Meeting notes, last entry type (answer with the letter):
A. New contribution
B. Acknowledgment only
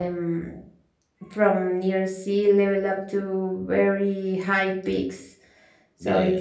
A